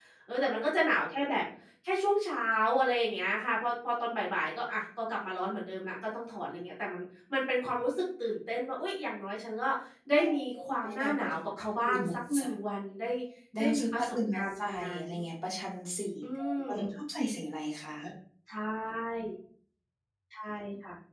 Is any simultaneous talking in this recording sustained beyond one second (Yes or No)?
Yes